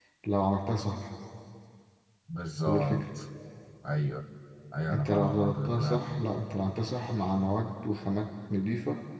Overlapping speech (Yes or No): Yes